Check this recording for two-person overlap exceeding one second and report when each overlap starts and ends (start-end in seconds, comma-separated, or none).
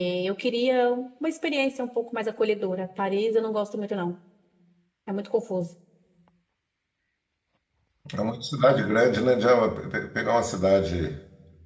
none